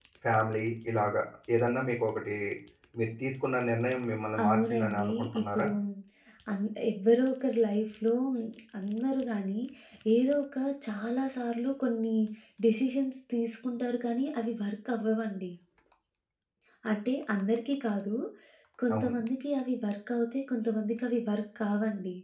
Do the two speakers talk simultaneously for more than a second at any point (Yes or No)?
Yes